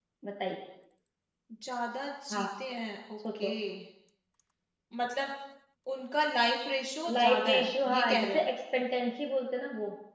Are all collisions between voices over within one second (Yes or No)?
No